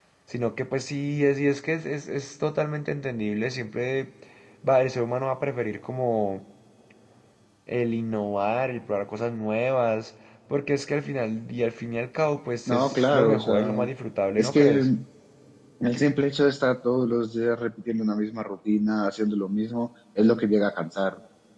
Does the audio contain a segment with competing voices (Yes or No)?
Yes